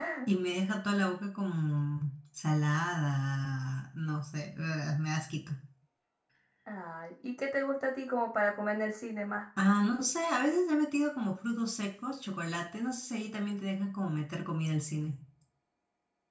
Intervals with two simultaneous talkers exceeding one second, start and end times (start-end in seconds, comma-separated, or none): none